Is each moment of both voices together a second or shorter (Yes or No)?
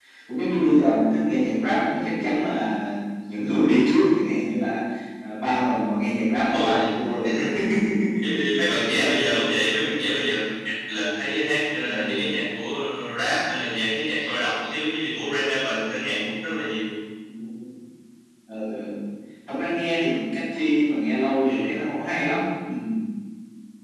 Yes